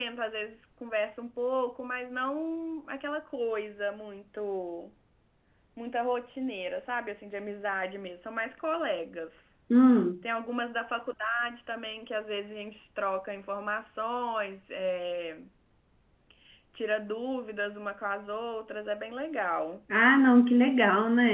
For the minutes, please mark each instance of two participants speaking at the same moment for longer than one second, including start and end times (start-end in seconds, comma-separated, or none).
none